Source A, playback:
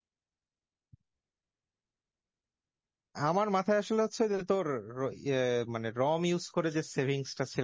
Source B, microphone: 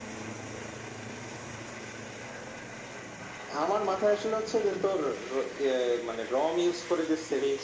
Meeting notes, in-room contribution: none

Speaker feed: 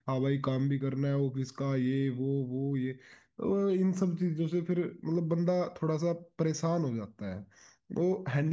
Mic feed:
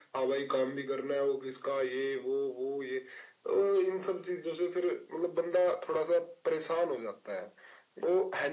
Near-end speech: none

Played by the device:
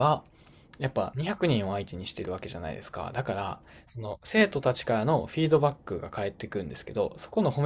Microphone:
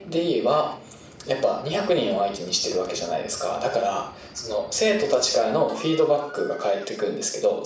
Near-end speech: none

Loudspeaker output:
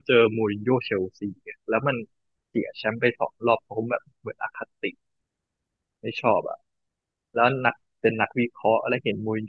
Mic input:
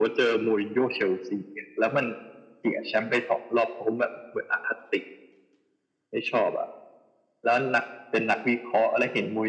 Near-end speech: none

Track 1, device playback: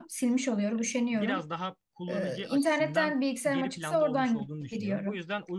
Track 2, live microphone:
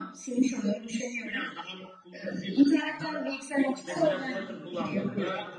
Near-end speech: present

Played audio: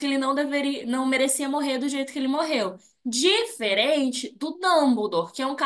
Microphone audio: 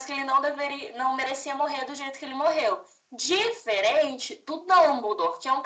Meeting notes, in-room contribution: none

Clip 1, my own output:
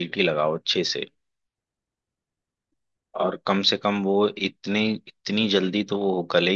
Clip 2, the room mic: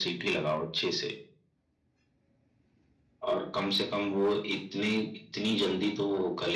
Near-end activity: none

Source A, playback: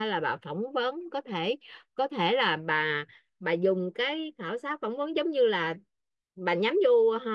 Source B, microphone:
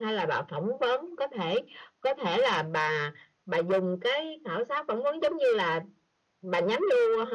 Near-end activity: none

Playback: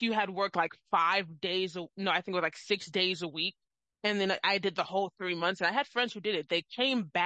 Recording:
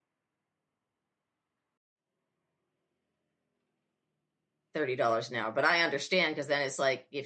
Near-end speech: present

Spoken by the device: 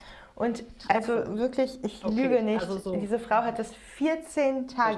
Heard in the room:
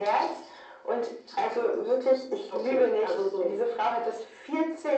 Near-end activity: none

